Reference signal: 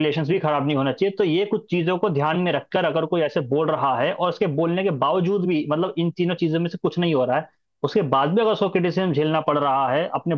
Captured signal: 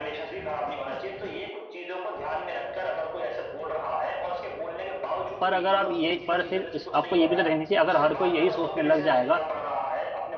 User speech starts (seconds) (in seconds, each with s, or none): 5.4 s